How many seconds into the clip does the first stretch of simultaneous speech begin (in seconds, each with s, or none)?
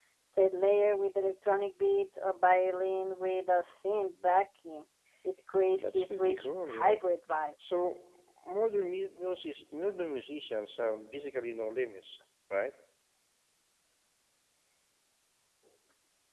5.7 s